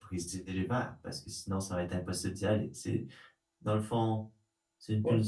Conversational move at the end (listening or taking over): listening